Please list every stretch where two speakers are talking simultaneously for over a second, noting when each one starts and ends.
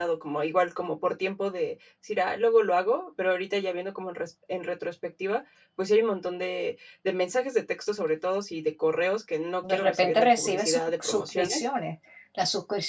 9.7-11.6

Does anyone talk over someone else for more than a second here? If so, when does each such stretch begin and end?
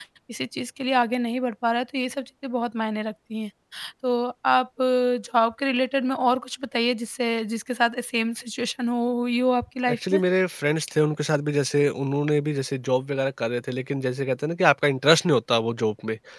none

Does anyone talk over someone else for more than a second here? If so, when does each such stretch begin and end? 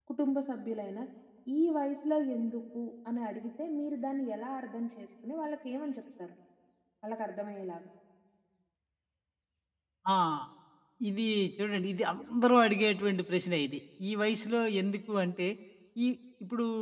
none

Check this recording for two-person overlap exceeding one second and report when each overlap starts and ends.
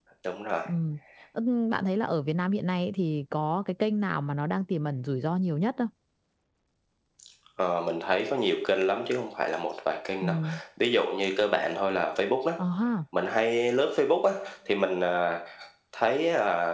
none

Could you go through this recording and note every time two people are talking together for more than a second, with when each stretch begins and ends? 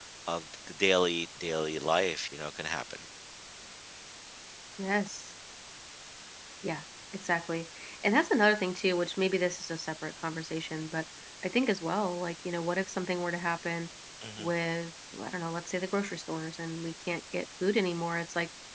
none

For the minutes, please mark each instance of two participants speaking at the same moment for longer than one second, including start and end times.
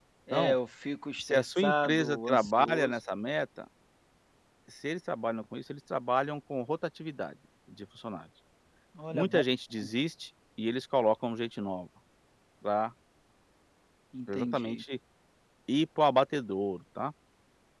1.2-3.0

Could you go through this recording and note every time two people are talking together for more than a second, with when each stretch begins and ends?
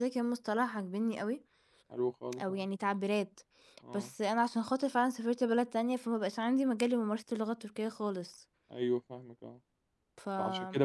none

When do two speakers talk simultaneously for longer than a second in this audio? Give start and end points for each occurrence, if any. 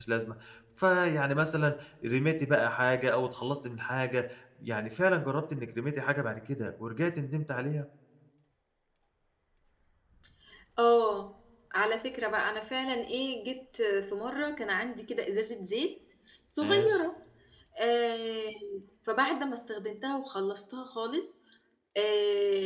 none

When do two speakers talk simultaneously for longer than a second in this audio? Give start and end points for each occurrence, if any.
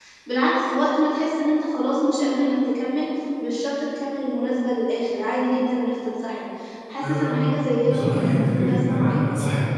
7.0-9.2

